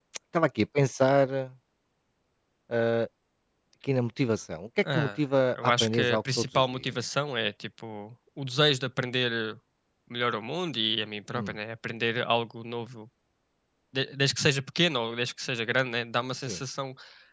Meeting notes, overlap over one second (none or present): present